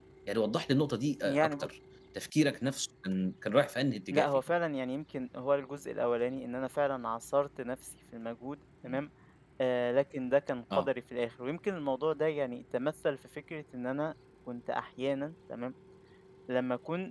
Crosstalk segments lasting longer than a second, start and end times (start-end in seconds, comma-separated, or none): none